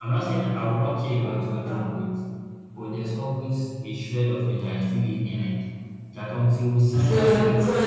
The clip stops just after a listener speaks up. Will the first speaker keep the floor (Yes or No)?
No